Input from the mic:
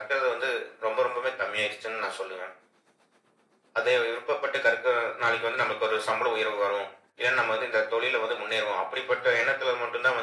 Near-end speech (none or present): none